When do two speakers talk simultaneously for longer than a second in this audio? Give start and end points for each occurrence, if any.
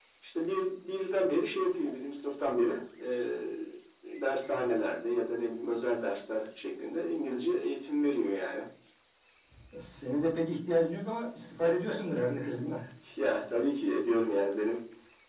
none

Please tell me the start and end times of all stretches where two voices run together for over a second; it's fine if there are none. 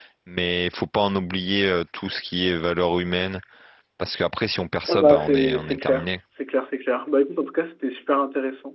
4.9-6.1

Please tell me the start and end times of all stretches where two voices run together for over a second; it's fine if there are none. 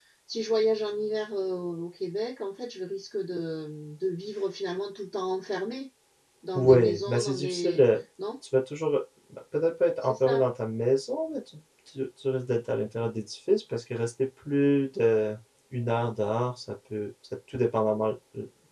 6.6-8.0

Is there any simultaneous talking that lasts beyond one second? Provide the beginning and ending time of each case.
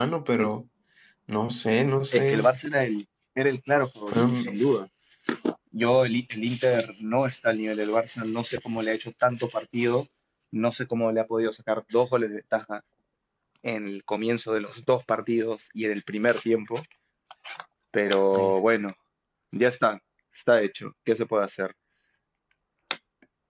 none

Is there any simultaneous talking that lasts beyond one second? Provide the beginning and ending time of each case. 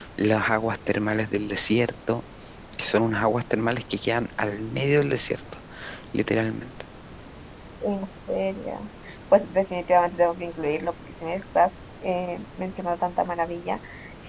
none

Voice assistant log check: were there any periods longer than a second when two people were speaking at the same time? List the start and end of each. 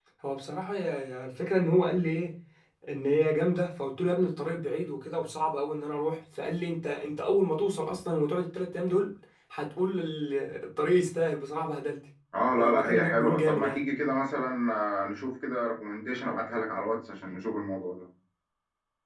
12.6-13.8

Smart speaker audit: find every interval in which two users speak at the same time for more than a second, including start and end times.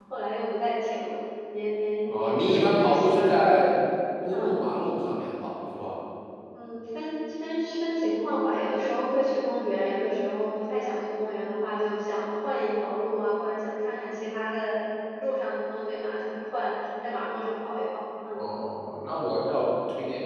2.1-3.3

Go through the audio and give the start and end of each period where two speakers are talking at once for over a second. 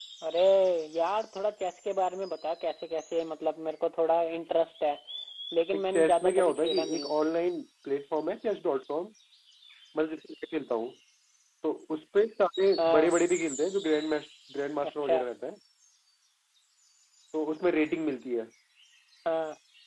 5.8-7.1

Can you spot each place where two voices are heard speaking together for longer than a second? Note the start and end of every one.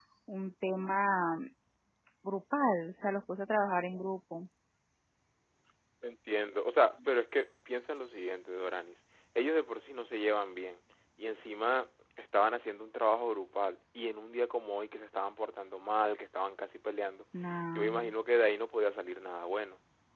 none

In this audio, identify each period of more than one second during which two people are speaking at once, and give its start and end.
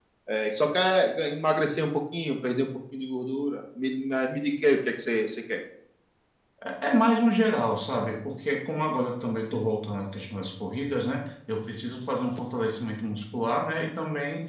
none

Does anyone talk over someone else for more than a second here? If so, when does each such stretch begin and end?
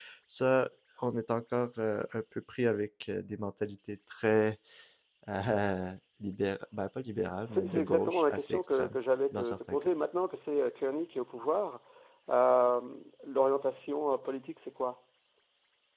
7.5-8.9

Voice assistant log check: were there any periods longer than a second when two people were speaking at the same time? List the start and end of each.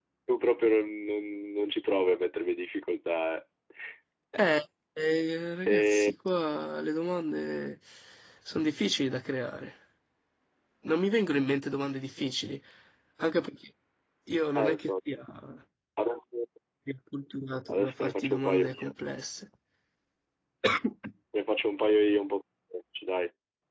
17.7-18.9

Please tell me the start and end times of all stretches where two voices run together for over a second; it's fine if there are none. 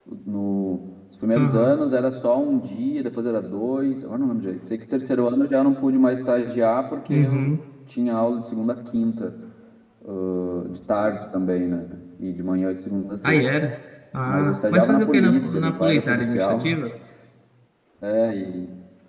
14.2-16.8

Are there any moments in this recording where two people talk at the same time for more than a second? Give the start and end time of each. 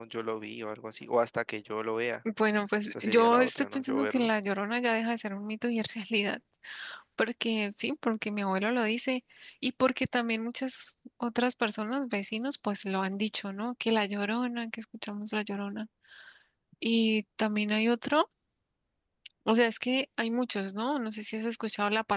2.9-4.3

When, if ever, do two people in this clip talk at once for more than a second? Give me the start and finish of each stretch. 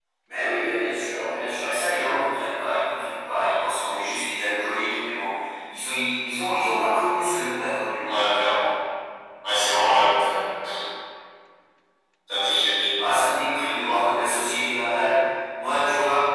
none

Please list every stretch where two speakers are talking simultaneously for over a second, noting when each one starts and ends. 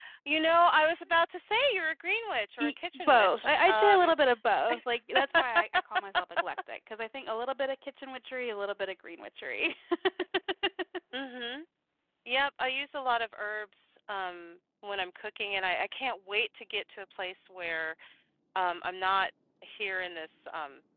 2.6-4.1

